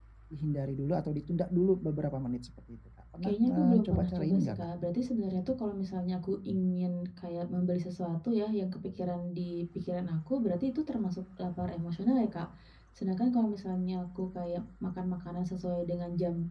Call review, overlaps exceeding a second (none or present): present